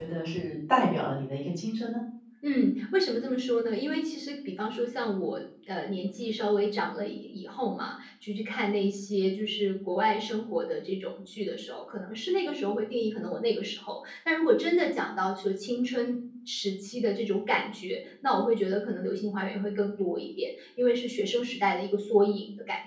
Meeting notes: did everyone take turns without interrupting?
Yes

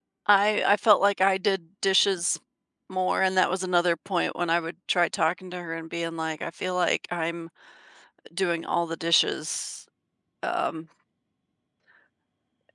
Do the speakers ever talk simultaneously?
No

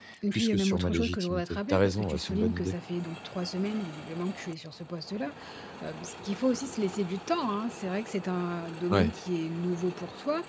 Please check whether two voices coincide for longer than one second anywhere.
Yes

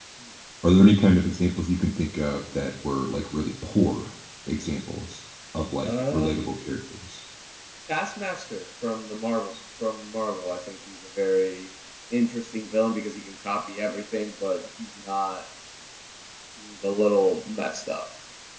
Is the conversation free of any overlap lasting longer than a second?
Yes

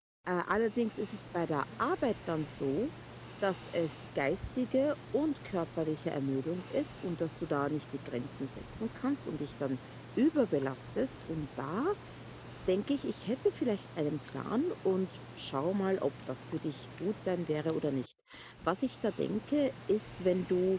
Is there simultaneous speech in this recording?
No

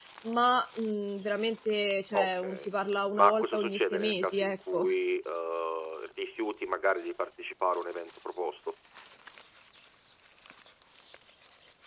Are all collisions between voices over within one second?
No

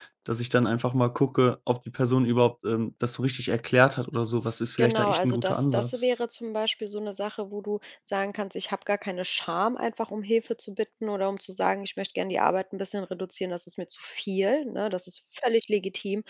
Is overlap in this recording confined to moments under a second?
No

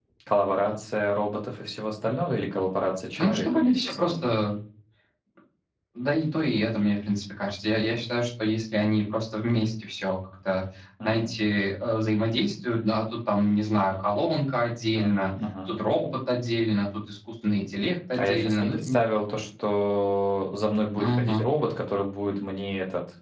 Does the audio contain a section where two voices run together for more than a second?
Yes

